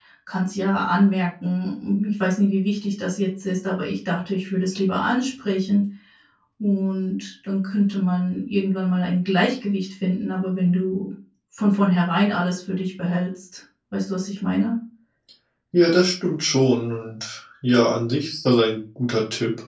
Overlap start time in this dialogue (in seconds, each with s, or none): none